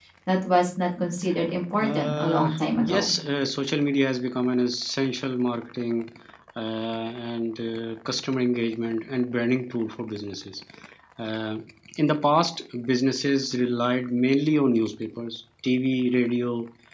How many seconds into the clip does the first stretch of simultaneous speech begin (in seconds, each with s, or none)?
1.8 s